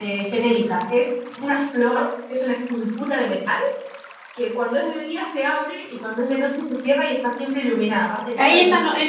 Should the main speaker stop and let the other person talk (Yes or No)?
Yes